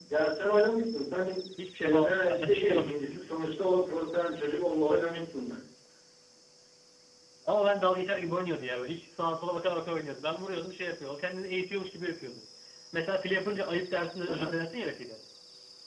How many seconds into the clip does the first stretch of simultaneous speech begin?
1.8 s

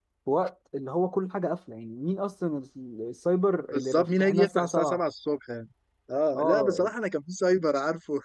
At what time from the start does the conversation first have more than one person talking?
3.7 s

